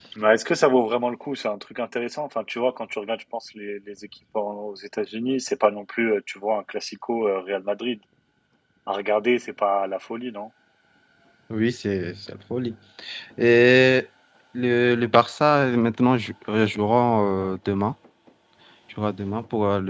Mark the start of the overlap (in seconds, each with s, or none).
none